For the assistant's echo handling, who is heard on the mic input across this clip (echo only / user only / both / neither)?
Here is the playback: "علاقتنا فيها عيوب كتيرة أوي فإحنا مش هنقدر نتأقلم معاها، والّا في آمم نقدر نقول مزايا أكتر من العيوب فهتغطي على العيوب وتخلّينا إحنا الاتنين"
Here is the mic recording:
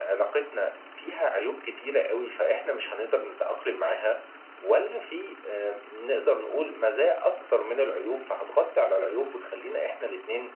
echo only